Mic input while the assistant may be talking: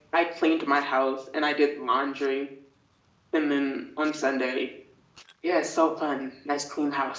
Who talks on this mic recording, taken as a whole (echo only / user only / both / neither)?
echo only